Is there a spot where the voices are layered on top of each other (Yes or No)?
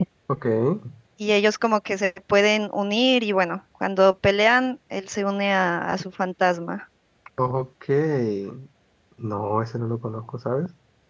No